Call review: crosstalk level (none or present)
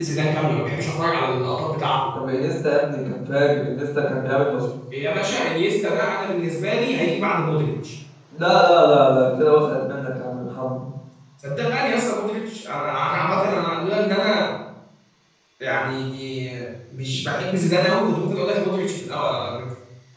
none